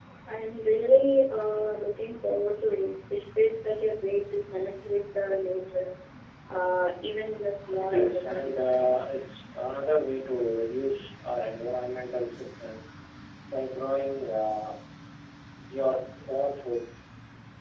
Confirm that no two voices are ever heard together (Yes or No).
No